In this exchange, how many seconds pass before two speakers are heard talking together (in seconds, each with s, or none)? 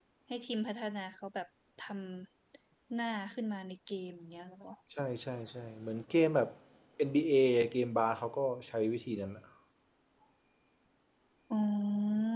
none